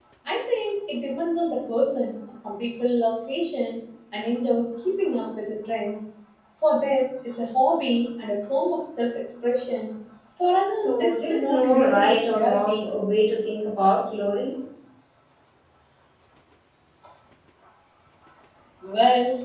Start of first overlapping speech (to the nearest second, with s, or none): 11 s